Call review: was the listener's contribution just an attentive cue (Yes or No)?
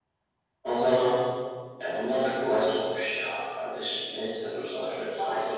No